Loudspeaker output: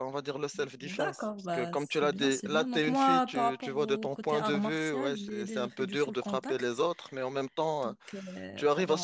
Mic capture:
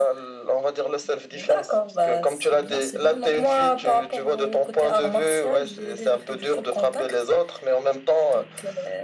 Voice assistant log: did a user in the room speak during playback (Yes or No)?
No